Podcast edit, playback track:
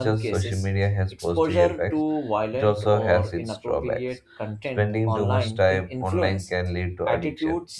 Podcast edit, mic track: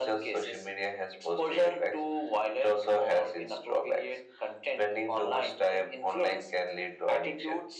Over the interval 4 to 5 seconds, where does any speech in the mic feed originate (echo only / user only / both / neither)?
echo only